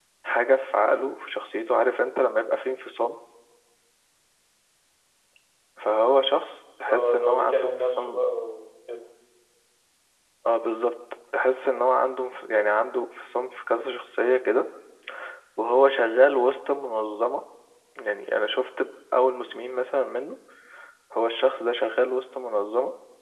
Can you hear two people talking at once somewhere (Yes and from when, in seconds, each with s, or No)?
Yes, from 6.9 s